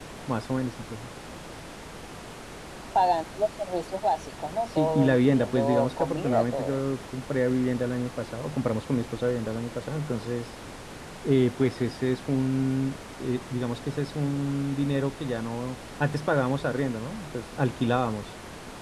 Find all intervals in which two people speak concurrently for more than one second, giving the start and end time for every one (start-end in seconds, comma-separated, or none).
4.8-6.8